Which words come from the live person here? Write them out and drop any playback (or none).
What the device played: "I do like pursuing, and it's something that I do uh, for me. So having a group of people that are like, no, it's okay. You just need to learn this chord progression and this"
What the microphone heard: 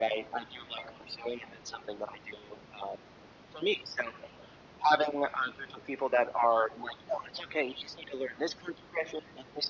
none